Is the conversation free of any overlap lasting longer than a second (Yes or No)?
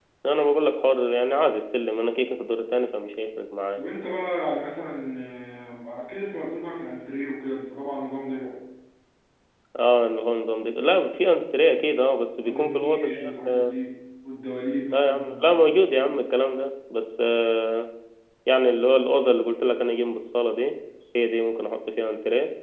No